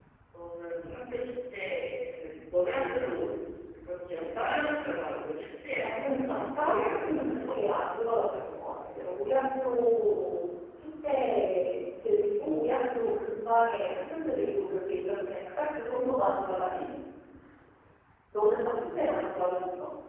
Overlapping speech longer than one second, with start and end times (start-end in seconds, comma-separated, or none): 5.8-7.6